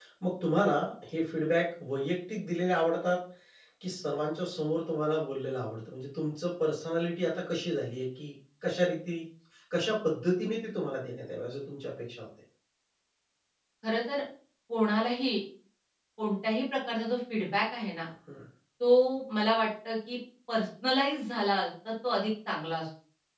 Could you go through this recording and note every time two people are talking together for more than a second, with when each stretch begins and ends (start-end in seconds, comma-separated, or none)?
none